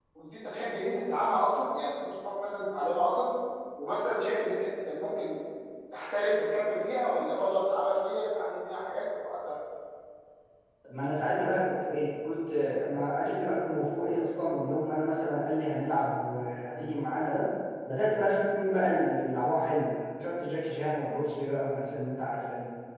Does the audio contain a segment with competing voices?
No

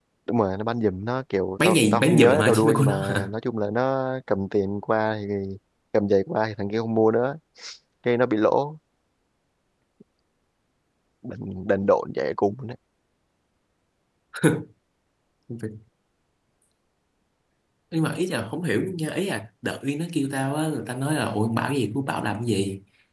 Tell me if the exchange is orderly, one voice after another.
No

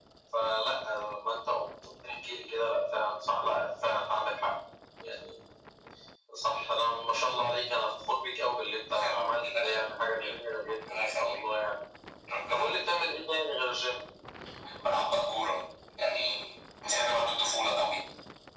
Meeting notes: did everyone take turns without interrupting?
No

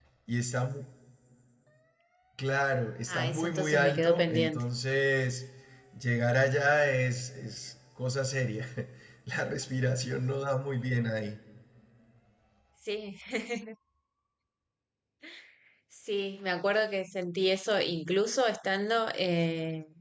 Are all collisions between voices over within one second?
No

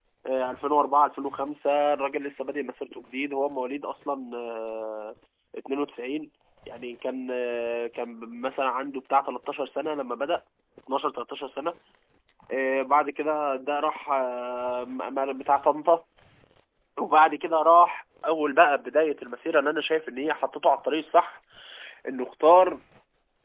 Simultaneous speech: No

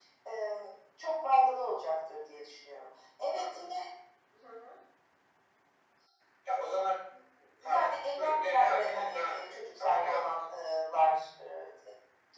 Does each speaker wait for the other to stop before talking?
No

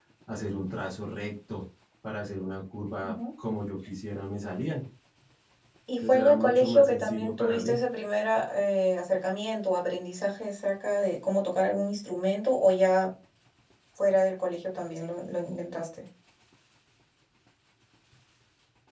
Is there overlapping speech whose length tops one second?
Yes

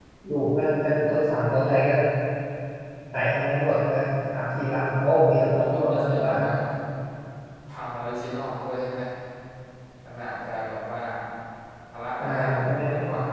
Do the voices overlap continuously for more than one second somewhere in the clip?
Yes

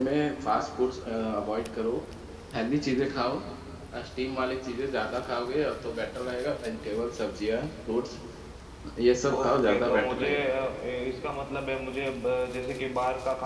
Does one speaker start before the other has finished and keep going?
Yes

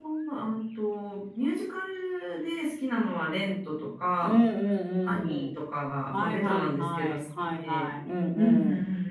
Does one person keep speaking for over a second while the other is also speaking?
Yes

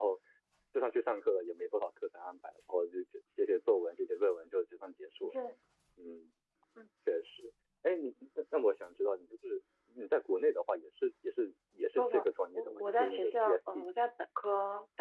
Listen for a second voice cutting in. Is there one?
Yes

